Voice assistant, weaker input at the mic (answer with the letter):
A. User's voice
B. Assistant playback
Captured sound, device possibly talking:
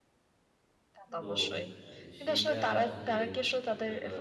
A